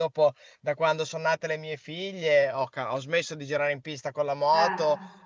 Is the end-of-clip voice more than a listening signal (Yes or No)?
No